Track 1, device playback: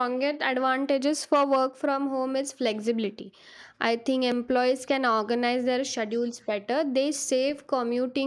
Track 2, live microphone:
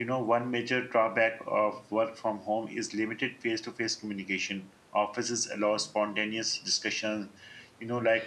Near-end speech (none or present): present